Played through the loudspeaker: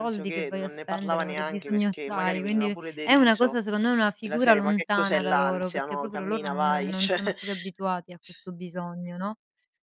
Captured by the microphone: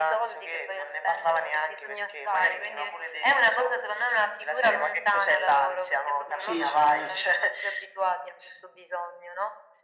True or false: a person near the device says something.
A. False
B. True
B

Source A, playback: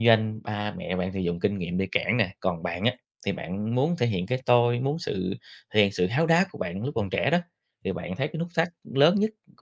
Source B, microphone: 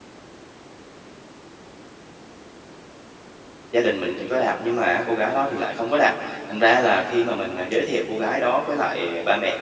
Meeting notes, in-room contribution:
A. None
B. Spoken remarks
B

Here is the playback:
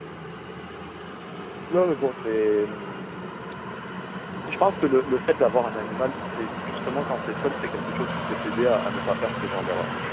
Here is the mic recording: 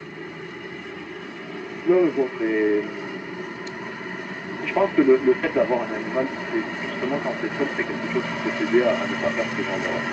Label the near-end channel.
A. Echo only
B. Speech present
A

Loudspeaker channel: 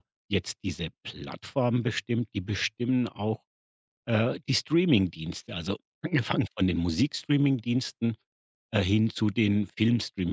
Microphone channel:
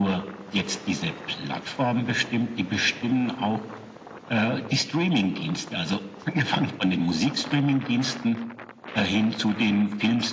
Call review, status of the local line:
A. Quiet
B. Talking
A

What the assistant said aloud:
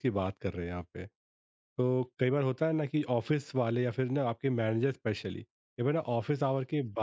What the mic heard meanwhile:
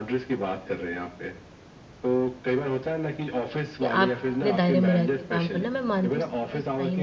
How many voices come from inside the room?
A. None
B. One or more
B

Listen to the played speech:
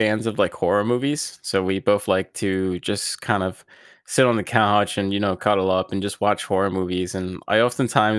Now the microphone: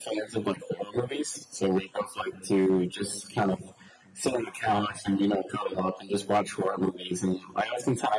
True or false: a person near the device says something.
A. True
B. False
B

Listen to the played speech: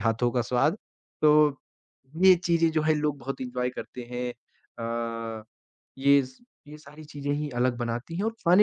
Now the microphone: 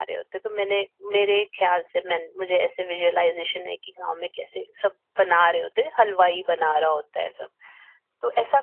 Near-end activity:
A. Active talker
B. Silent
A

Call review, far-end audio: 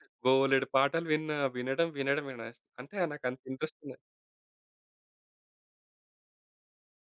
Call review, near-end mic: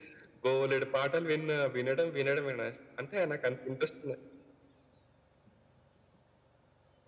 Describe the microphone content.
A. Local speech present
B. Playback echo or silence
B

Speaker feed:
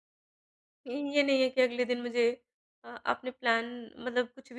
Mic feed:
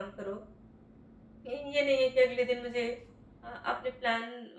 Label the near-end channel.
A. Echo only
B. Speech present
A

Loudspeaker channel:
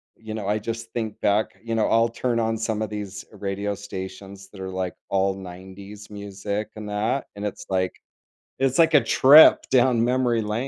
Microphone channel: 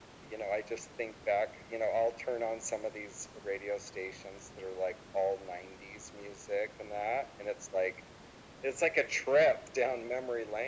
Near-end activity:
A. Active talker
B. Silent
B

